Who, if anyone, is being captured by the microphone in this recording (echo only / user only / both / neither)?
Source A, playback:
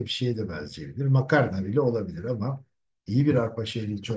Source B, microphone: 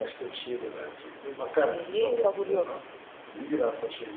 both